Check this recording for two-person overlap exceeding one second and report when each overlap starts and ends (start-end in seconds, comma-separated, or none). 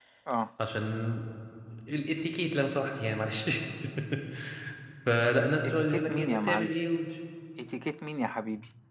5.4-6.7